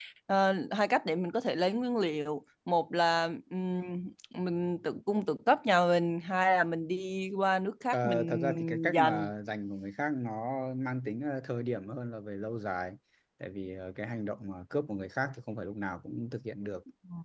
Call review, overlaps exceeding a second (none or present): present